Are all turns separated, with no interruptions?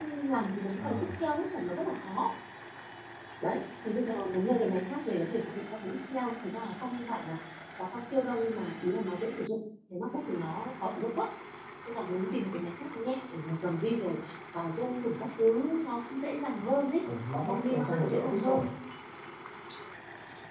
No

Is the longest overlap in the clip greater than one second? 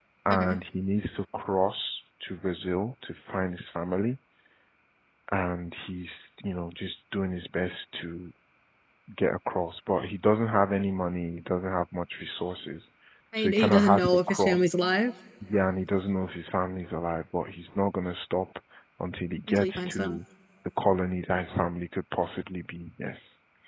Yes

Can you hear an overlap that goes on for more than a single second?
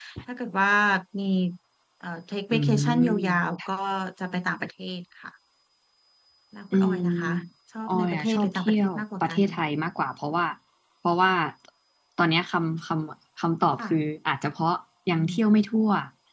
Yes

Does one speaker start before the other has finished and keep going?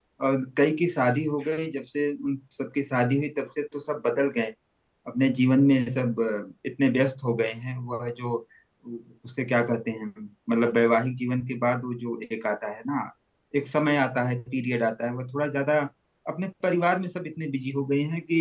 No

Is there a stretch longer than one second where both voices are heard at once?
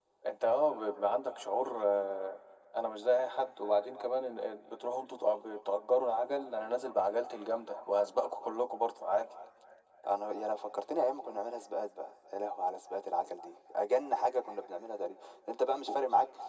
No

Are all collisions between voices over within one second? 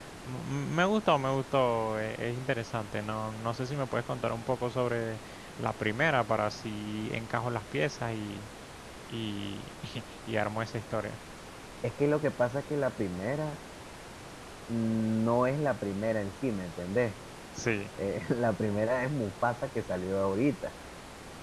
Yes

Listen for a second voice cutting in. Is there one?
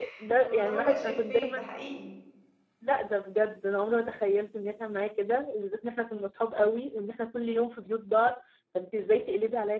Yes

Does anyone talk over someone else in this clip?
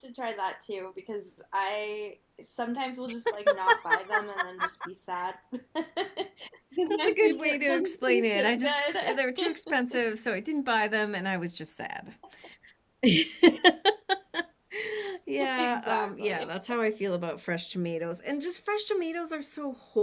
Yes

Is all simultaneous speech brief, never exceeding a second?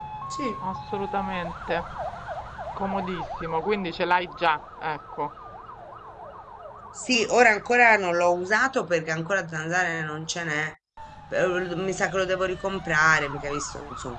Yes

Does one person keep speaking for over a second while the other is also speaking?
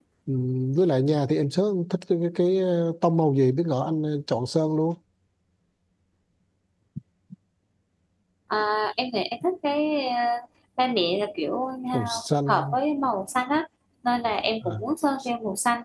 No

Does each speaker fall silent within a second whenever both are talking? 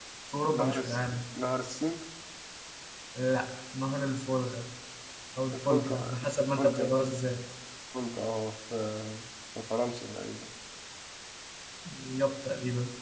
No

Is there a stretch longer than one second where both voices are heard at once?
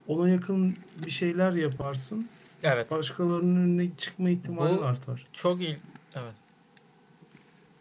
No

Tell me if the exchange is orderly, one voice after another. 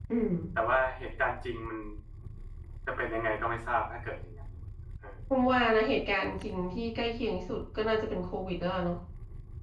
Yes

